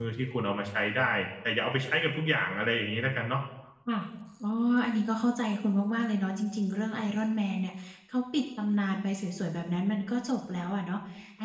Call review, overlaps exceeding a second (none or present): none